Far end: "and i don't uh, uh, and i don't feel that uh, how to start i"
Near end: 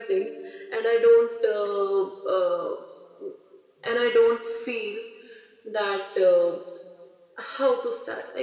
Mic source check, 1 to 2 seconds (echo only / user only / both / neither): echo only